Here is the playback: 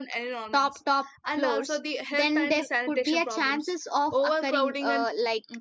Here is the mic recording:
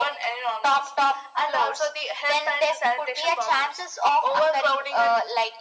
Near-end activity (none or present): none